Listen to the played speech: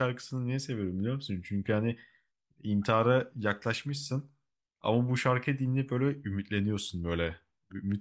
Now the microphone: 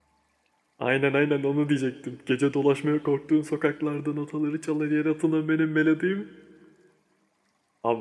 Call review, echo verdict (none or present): none